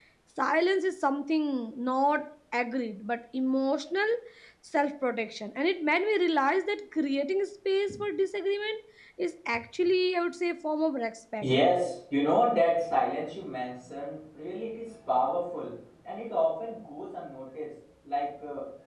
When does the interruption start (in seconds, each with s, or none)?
none